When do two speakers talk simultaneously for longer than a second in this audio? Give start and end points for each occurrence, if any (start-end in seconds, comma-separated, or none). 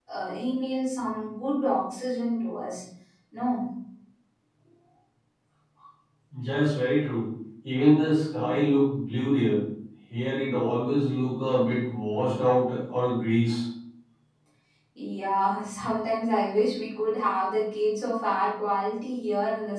none